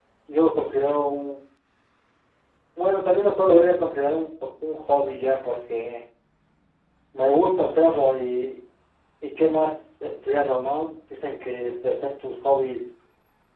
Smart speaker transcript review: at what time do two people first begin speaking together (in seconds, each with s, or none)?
none